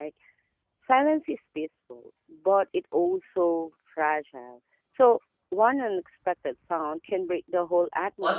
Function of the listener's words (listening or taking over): taking over